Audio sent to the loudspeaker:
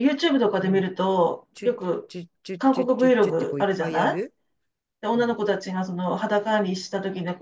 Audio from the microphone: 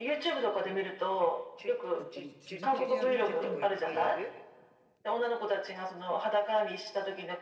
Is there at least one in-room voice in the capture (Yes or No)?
Yes